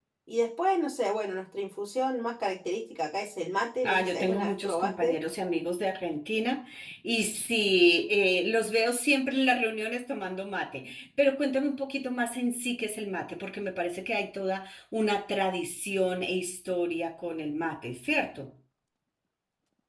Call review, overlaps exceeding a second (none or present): present